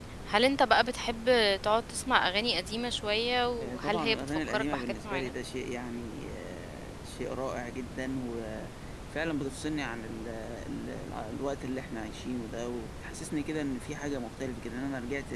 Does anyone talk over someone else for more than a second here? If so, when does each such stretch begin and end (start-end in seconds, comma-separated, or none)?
3.6-5.3